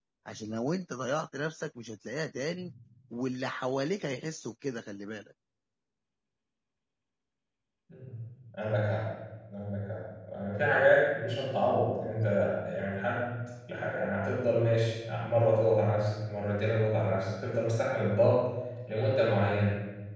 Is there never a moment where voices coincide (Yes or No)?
Yes